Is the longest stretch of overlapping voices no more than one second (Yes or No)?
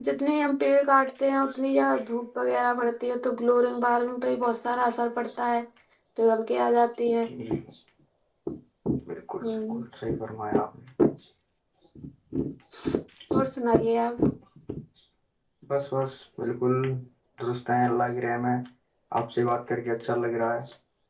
Yes